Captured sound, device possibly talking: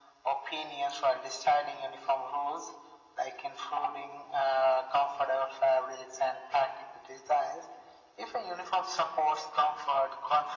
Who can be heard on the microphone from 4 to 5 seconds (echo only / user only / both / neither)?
echo only